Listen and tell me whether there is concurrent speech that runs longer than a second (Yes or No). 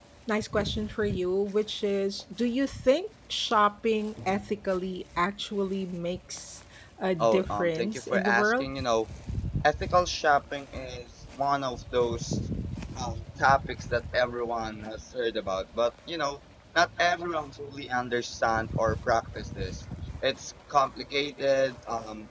Yes